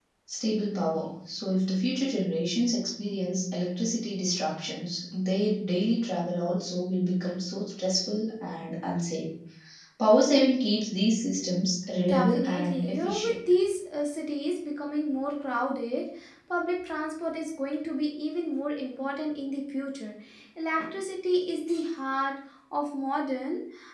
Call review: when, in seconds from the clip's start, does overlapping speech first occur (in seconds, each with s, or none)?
12.1 s